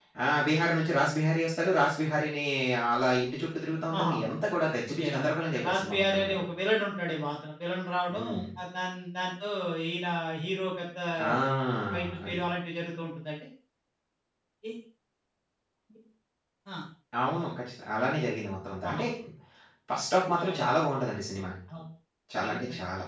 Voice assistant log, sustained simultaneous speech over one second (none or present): present